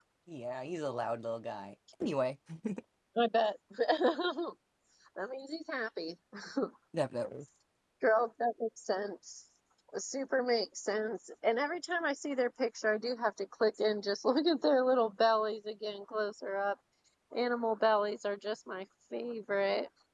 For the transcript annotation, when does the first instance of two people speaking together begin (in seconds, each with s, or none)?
none